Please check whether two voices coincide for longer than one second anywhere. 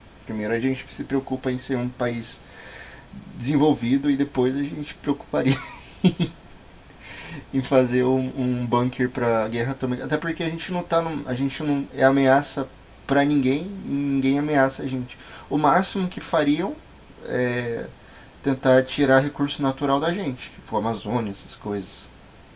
No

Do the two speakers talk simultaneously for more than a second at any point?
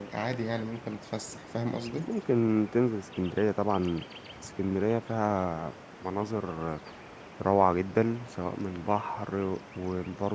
No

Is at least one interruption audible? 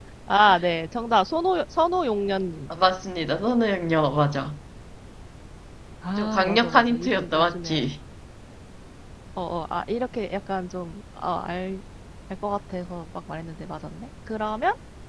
Yes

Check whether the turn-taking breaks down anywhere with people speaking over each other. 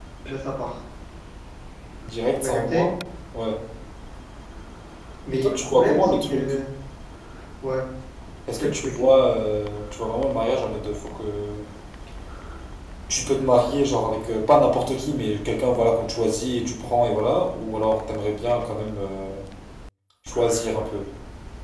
Yes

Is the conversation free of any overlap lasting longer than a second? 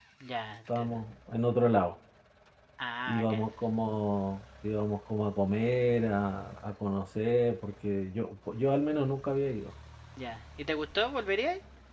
Yes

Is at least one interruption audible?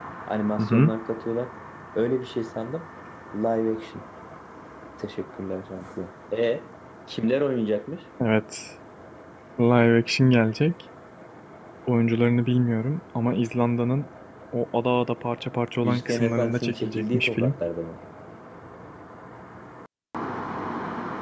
Yes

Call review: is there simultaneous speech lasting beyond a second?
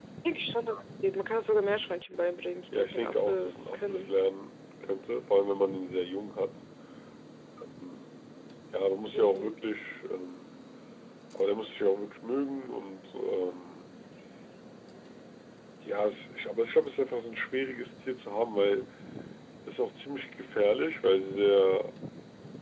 Yes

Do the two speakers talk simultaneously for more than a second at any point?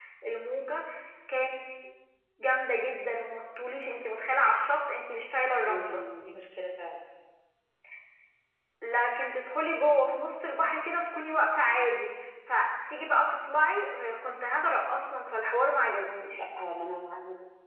No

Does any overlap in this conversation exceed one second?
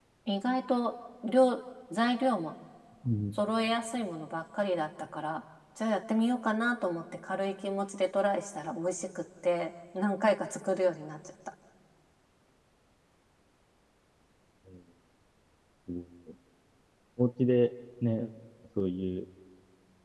No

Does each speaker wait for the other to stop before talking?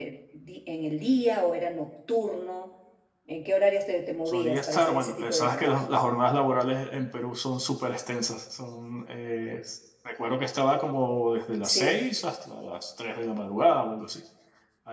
No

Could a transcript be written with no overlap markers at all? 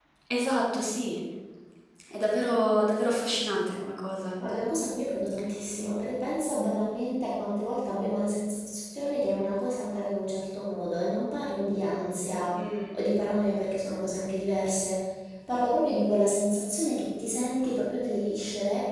Yes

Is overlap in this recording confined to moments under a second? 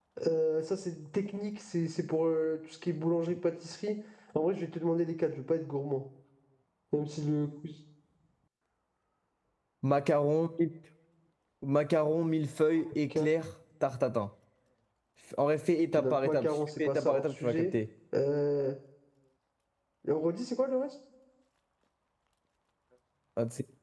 No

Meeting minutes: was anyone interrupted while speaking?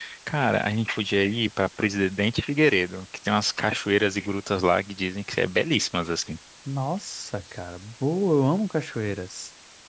No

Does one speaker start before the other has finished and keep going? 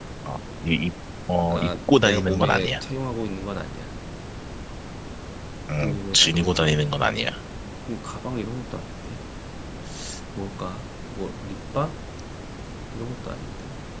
Yes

